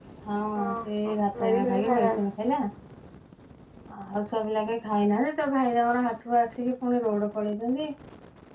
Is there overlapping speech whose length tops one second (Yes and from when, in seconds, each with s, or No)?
Yes, from 0.8 s